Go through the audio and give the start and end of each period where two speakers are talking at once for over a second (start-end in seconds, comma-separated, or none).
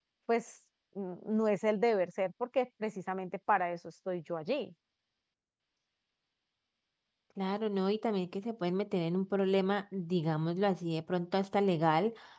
none